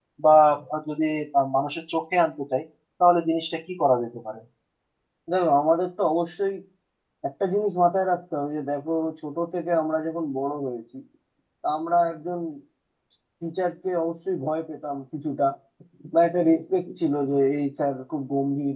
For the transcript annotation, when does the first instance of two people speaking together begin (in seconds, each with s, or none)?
none